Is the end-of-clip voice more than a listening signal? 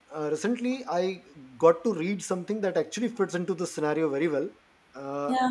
No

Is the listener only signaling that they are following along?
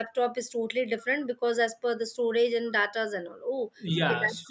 No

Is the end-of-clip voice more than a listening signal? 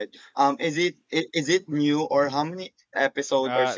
Yes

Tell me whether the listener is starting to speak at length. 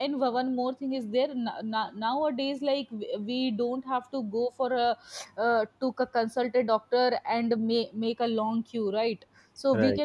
No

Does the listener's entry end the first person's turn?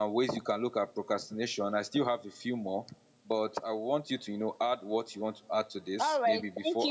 Yes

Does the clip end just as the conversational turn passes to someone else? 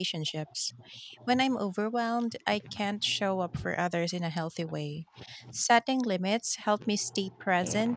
Yes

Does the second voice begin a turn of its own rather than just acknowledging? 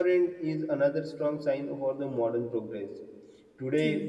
No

